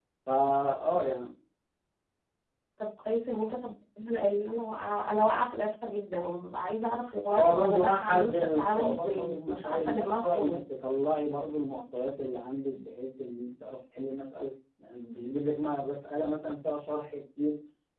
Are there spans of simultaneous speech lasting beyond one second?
Yes, from 7.3 s

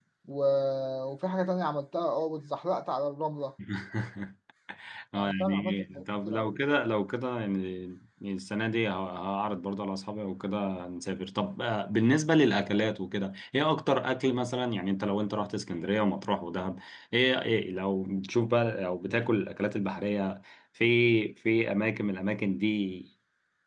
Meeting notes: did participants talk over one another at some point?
Yes, from 5.1 s

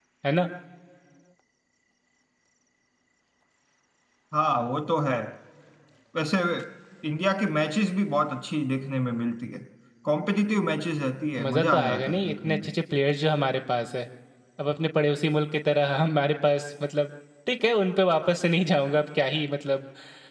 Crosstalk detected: Yes, from 11.4 s

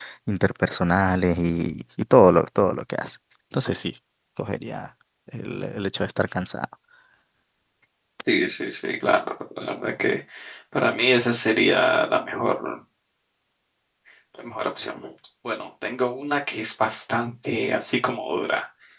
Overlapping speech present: No

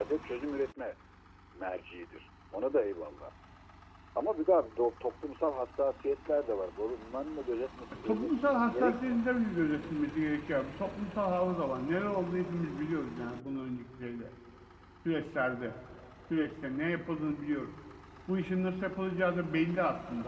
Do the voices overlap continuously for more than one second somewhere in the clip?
Yes, from 8.1 s

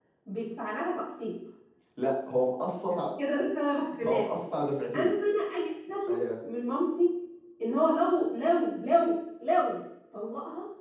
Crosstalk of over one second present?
No

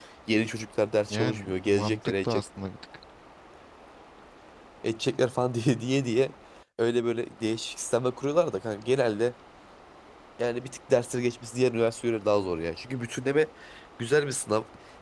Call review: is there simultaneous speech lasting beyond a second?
Yes, from 1.1 s

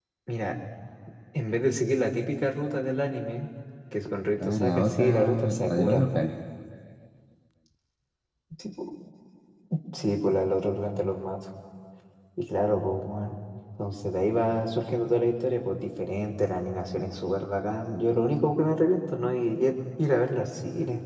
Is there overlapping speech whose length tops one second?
Yes, from 4.4 s

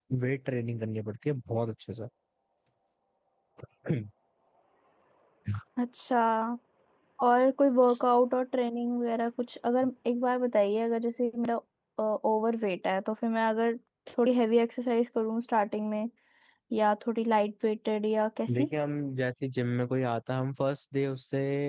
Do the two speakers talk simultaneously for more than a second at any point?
No

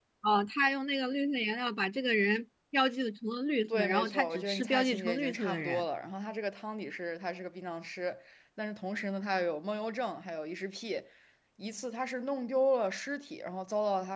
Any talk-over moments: Yes, from 3.7 s

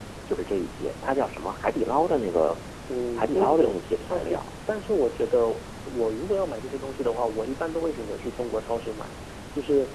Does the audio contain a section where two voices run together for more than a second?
Yes, from 3.2 s

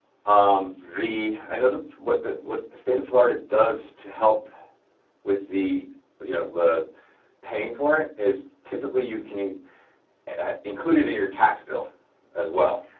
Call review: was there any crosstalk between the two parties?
No

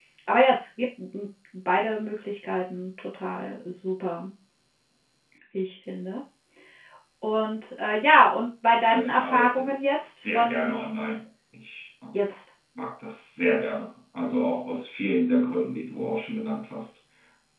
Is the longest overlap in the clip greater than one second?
Yes, from 8.9 s

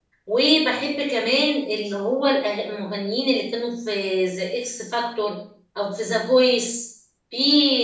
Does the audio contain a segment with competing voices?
No

